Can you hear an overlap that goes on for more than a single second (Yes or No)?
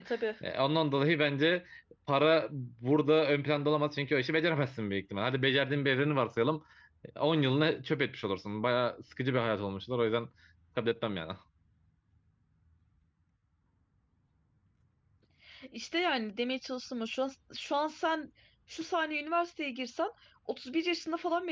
No